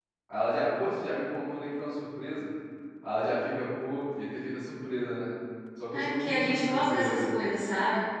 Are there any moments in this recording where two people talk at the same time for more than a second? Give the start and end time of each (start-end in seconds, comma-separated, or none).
5.9-7.3